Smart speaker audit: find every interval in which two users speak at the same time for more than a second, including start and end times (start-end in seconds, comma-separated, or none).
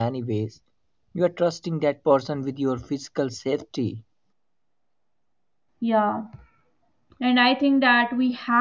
none